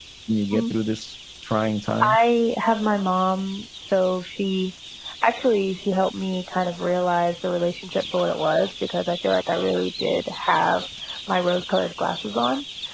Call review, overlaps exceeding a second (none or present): none